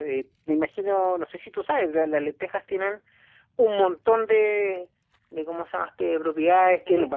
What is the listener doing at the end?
listening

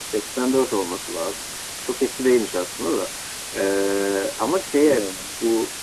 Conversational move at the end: listening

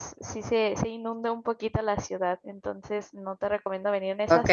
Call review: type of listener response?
taking over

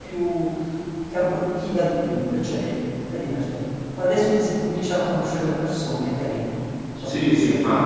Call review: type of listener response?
taking over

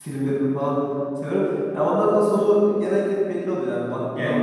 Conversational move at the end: listening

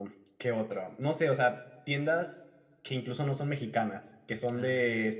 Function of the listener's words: listening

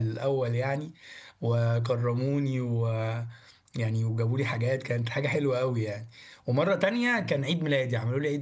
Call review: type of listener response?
listening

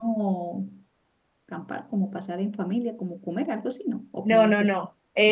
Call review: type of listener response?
taking over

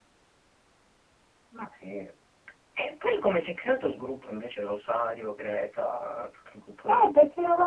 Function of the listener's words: taking over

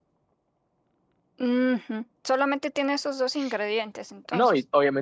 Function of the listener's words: taking over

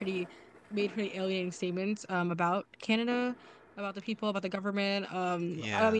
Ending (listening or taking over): listening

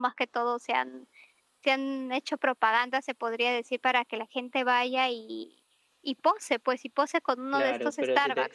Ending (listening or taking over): taking over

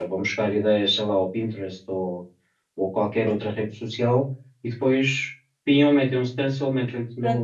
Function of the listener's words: taking over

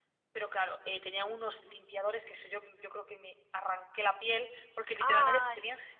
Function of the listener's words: listening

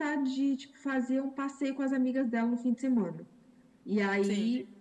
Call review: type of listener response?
listening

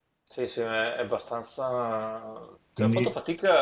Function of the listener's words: listening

